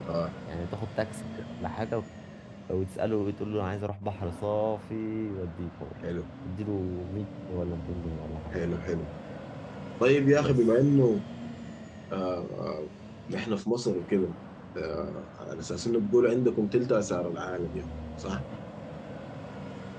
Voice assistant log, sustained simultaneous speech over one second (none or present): none